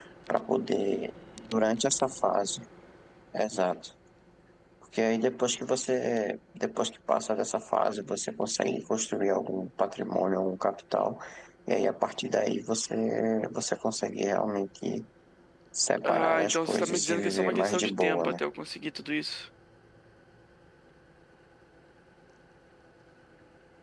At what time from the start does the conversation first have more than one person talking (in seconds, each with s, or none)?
16.0 s